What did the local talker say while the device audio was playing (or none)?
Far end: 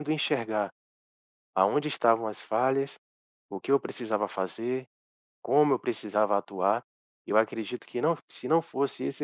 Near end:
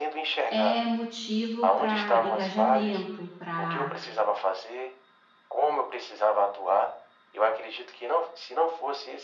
é motivo para engajamento, para